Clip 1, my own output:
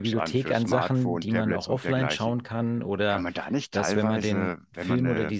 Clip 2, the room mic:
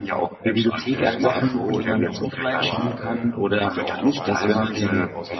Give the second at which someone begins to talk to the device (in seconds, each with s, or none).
0.9 s